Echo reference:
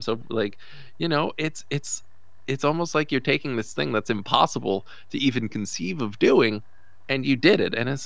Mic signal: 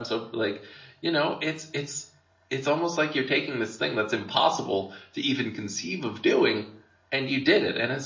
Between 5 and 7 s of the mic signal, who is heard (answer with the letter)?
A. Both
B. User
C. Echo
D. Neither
C